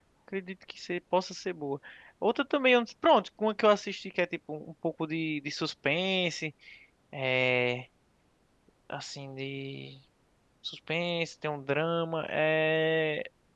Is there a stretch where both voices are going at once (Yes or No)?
No